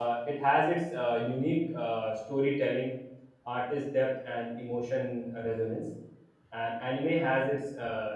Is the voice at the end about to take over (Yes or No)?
No